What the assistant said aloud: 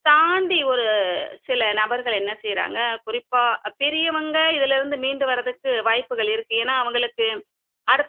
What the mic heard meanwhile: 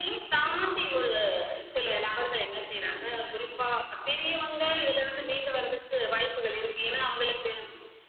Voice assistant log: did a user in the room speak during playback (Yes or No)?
No